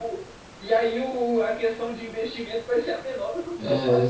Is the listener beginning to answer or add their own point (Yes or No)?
Yes